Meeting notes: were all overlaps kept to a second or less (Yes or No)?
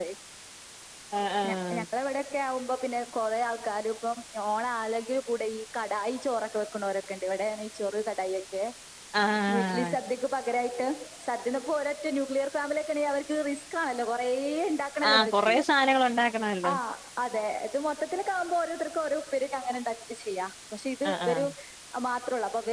Yes